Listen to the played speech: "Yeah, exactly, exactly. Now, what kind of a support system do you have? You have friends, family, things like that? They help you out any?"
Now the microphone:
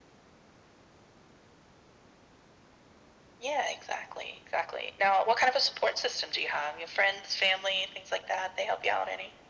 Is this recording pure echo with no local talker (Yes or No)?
Yes